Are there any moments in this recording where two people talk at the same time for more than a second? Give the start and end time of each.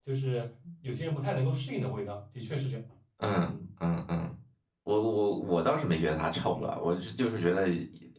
none

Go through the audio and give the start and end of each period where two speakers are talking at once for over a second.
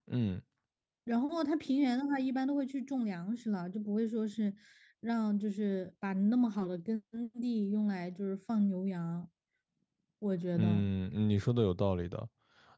none

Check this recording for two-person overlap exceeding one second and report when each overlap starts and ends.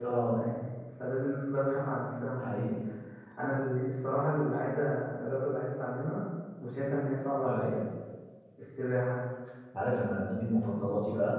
none

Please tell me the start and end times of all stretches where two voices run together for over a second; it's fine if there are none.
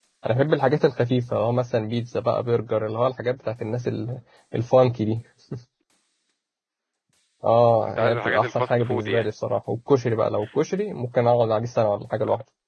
8.0-9.3

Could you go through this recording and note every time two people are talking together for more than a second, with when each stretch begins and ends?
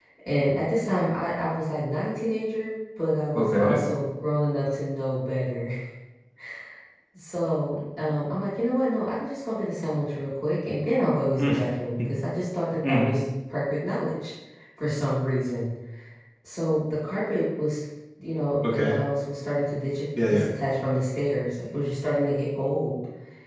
none

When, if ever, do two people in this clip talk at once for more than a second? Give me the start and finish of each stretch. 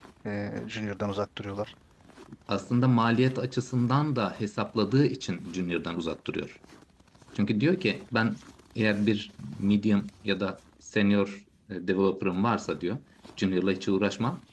none

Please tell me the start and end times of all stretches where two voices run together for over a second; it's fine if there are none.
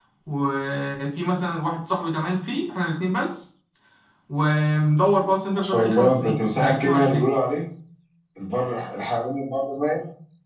5.6-7.3

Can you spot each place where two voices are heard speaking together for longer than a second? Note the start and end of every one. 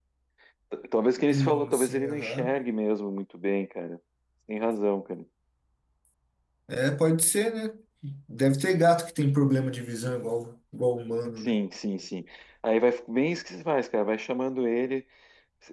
1.3-2.5

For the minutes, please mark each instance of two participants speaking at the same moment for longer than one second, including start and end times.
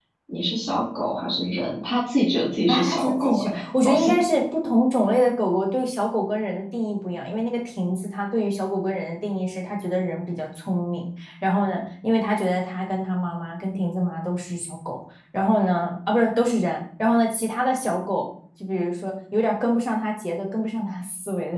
2.7-4.1

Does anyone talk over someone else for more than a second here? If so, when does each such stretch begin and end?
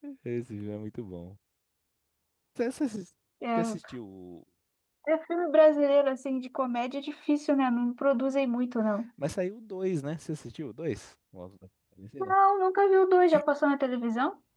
none

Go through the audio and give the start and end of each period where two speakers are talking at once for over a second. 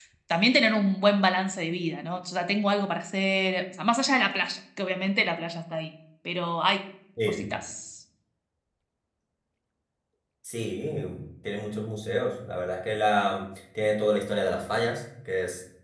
none

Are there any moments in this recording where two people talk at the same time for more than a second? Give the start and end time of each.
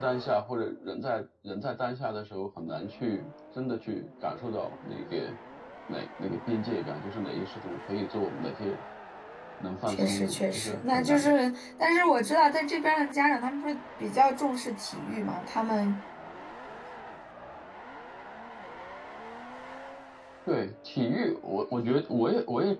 9.9-11.3

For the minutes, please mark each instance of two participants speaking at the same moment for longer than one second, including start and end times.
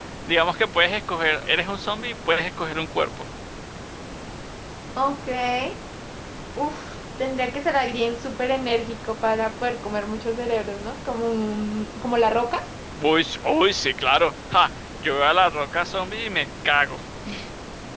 none

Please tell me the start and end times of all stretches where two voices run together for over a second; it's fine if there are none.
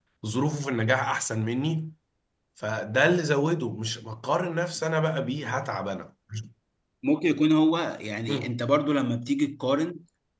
none

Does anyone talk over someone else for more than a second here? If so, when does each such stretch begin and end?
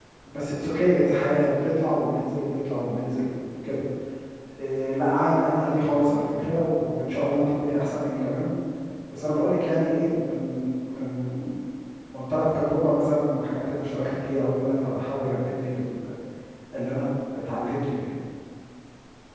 none

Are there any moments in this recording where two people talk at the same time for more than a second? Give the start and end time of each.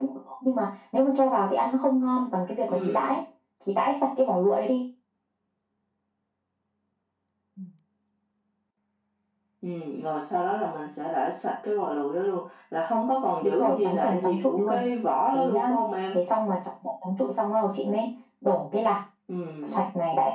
13.4-14.8

